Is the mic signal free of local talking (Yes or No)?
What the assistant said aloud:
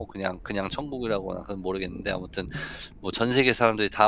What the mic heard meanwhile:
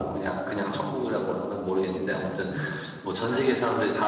Yes